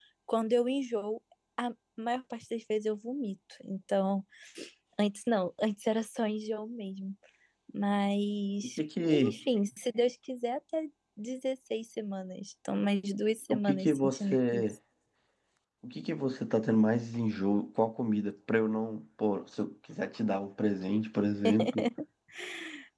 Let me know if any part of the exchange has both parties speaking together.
Yes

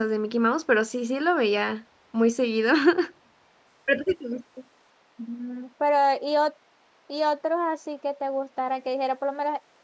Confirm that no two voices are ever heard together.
Yes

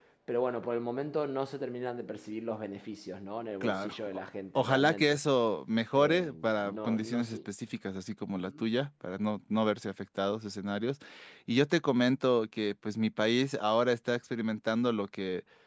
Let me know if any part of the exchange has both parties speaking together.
Yes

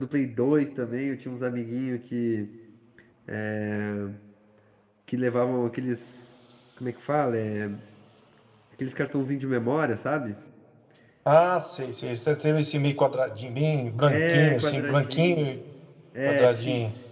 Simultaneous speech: Yes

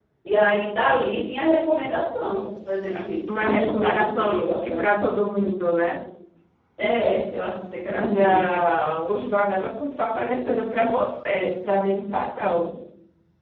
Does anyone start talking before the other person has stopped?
Yes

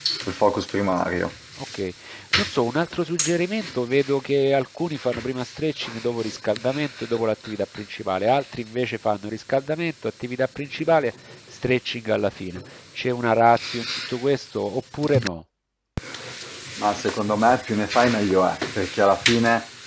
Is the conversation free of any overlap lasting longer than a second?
Yes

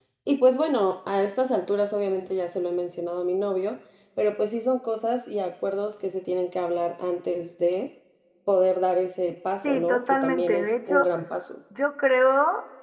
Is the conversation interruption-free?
No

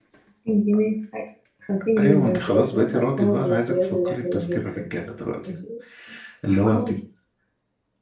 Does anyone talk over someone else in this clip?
Yes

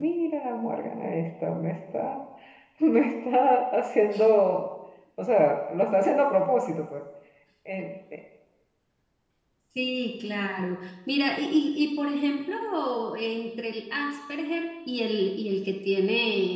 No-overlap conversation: Yes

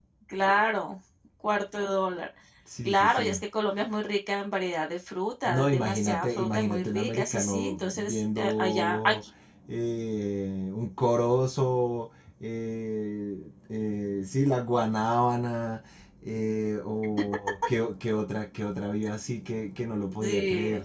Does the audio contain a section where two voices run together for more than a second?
Yes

